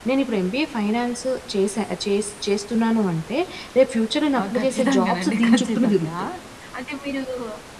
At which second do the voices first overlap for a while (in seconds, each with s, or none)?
4.4 s